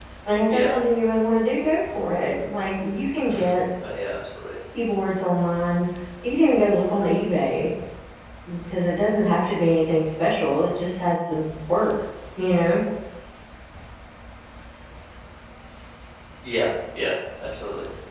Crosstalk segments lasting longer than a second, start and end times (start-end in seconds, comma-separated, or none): none